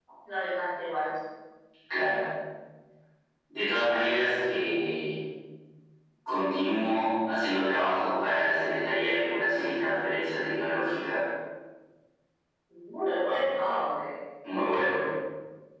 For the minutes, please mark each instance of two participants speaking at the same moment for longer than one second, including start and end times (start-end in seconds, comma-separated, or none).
none